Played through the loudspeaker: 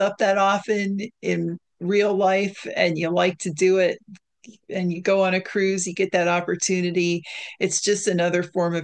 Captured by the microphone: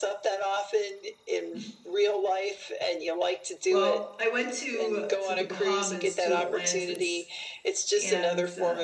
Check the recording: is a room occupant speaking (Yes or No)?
Yes